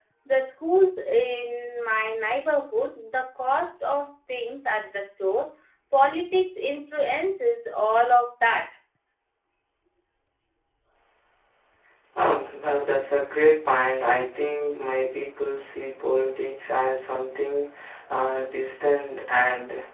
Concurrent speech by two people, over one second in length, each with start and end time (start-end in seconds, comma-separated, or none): none